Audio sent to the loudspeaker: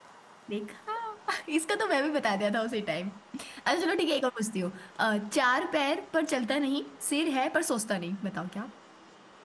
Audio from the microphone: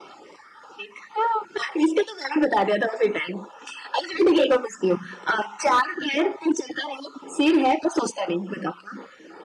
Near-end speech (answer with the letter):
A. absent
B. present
A